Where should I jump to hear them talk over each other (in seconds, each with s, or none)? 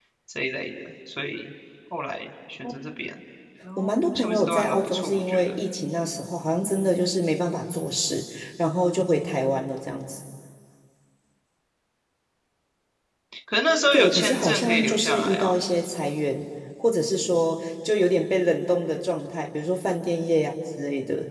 3.8 s